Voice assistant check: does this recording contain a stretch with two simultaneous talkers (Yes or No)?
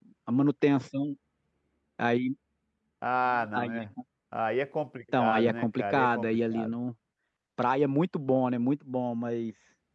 Yes